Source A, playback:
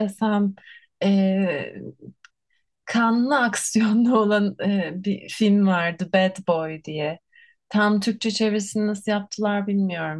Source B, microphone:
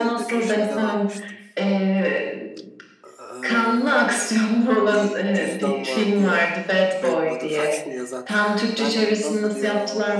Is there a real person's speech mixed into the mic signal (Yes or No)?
Yes